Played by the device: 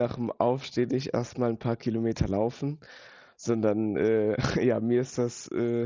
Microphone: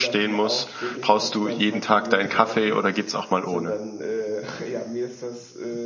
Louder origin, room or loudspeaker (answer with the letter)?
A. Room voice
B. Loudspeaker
A